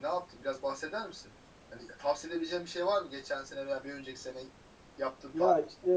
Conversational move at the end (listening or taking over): taking over